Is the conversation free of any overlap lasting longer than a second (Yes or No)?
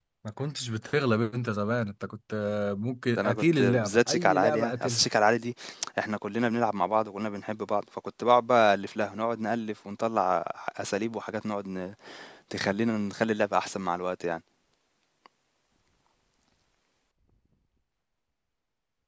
No